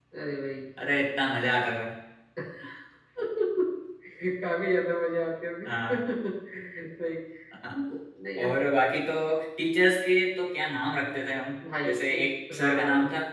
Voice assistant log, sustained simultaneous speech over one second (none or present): present